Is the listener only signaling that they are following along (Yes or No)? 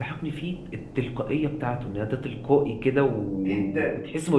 Yes